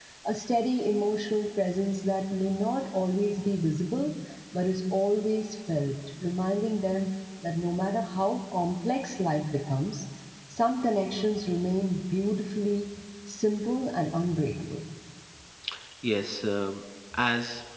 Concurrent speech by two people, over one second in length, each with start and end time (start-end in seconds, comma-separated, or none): none